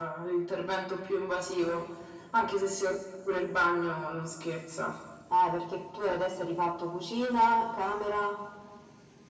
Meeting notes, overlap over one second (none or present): none